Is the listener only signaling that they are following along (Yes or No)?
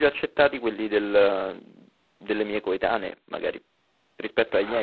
No